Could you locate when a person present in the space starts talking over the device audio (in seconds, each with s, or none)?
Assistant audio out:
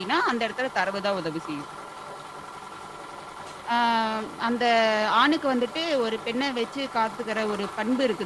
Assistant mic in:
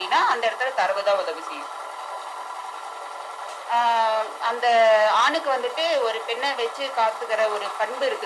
none